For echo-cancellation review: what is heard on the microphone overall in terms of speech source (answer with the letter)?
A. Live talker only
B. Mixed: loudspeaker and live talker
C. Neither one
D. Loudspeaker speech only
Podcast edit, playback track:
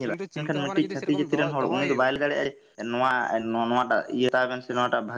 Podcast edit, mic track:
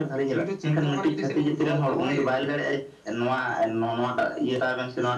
D